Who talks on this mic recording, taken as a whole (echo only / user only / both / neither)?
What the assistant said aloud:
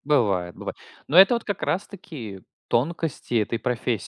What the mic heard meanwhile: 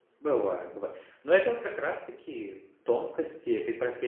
echo only